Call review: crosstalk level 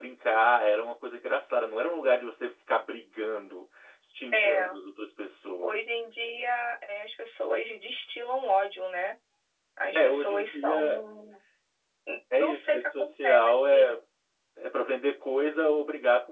present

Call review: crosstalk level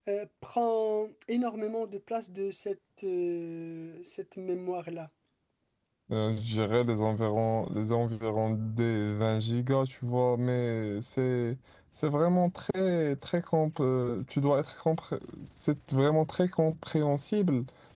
none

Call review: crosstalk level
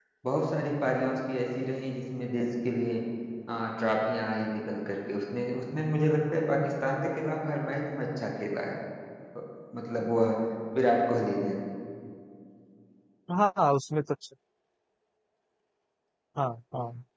none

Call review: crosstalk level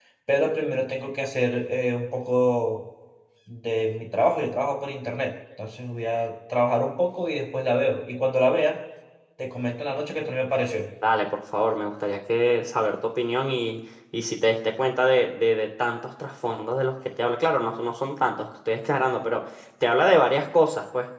none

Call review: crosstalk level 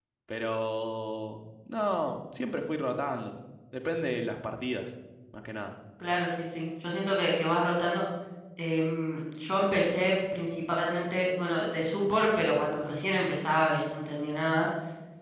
none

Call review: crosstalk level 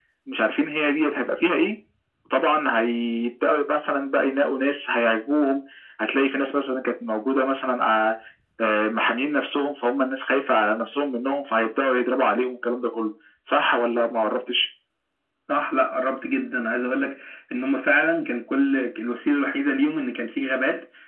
none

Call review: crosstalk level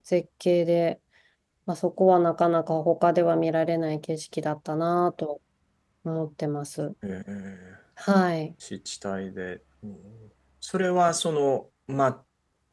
none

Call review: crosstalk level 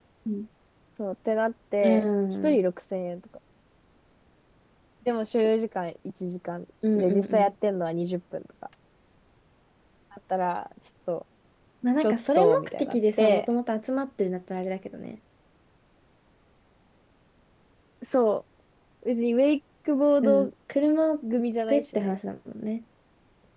present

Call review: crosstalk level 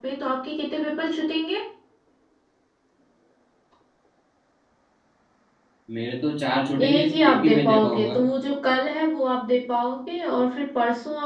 present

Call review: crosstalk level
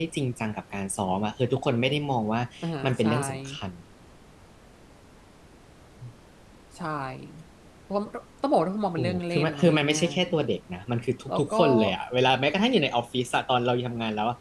present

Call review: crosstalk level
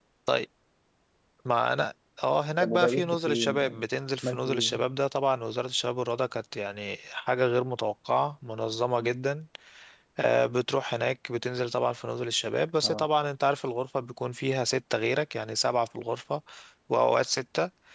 present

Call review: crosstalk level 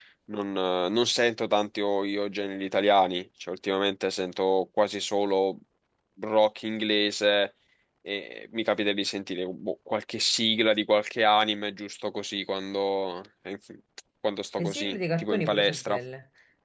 present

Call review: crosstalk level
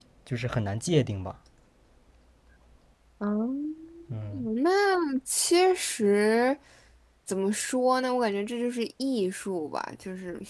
none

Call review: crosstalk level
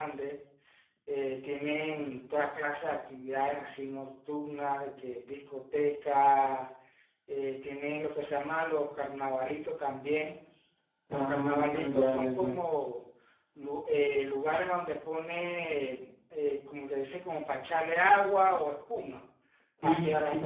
present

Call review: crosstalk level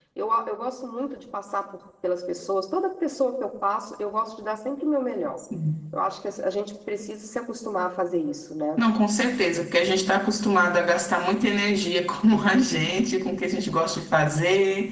none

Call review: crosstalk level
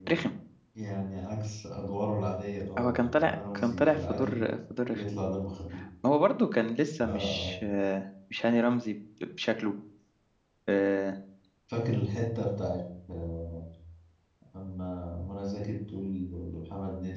present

